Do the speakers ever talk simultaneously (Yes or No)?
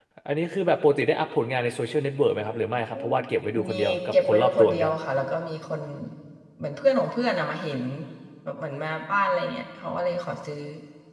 Yes